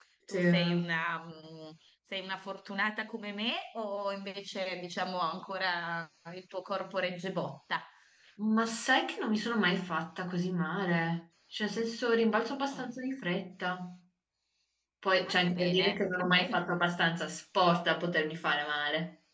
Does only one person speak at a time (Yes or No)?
No